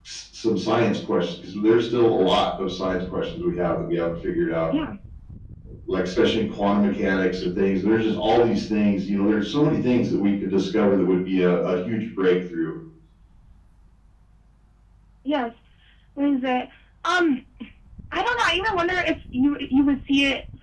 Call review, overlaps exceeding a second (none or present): none